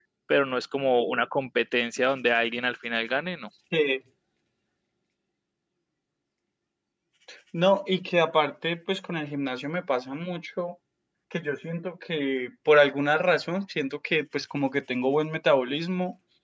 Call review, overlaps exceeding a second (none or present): none